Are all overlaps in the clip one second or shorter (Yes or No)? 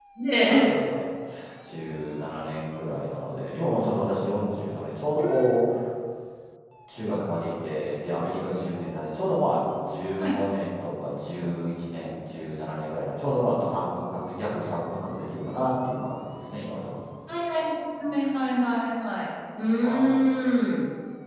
Yes